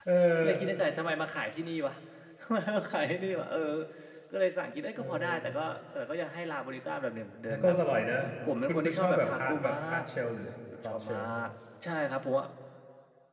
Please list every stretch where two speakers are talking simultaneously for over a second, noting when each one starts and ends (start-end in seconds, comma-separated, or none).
8.7-10.0